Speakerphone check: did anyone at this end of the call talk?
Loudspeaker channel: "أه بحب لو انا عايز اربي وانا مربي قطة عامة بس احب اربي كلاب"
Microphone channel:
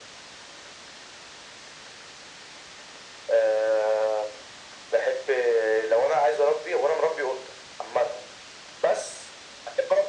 No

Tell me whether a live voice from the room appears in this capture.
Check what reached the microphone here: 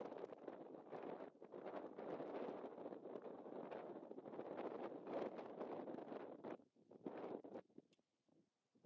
No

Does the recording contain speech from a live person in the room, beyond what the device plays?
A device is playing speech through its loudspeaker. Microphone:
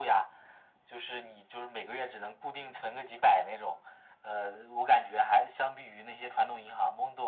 No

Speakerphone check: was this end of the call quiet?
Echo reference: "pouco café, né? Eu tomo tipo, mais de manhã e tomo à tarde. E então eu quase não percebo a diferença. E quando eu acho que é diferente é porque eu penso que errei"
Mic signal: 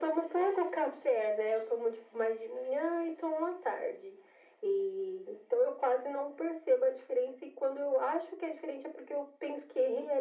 Yes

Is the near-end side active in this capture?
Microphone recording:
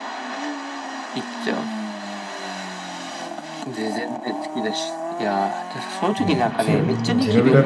Yes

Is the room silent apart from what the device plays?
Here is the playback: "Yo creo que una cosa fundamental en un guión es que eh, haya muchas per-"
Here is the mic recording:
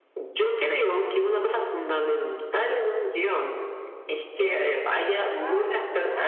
No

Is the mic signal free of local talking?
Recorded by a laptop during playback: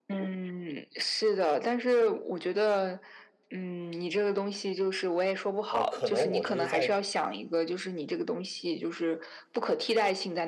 No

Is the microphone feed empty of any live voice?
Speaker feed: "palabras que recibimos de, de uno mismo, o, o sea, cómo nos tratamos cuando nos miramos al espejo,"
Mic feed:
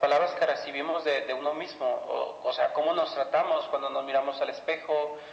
Yes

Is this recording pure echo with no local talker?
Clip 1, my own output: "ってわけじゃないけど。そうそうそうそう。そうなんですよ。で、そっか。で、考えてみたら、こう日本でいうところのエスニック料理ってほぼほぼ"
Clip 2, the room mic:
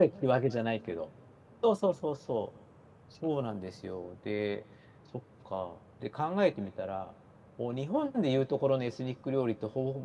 Yes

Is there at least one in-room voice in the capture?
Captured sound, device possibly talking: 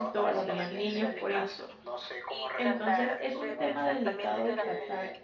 Yes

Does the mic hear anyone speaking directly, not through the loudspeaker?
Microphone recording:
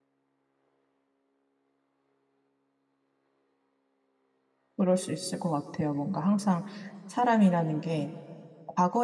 Yes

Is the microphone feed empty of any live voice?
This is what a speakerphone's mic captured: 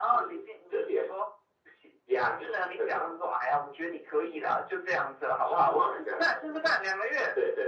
Yes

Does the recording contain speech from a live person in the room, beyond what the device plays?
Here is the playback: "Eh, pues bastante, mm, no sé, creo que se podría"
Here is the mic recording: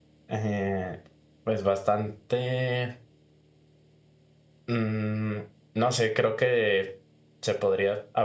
No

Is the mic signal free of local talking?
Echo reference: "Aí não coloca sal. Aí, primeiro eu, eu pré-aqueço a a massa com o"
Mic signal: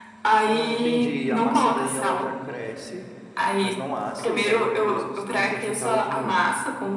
No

